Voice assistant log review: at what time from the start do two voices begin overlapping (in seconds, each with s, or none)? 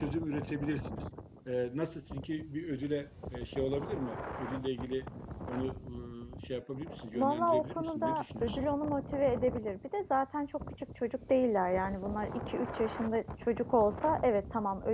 7.1 s